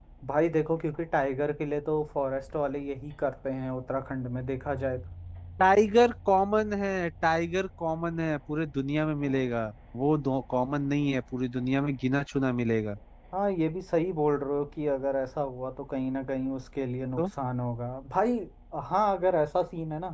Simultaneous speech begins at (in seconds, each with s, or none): none